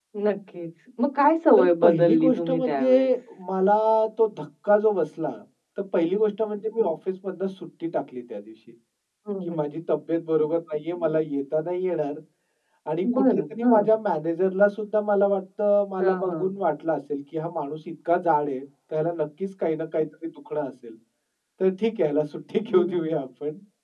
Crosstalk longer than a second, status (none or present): present